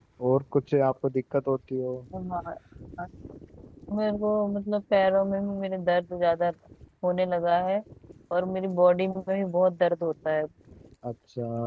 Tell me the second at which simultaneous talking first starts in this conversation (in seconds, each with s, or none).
none